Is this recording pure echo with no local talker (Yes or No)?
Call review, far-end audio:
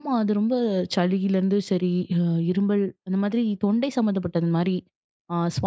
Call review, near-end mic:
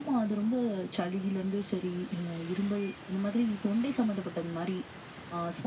Yes